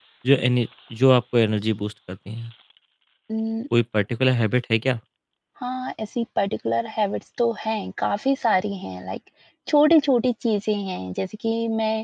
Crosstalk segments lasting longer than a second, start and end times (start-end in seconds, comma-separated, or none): none